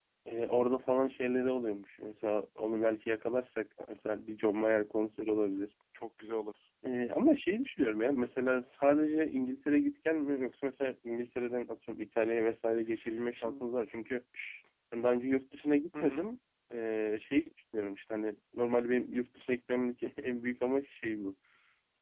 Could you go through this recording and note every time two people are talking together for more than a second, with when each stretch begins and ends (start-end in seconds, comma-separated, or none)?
none